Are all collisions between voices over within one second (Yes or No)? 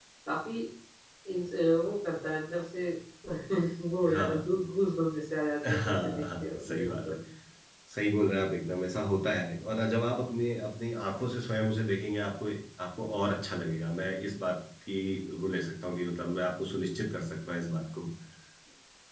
No